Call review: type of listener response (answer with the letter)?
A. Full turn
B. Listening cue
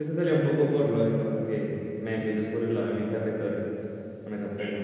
A